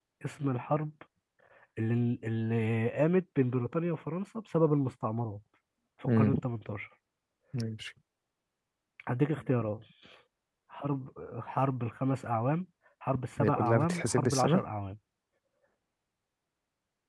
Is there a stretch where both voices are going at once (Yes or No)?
Yes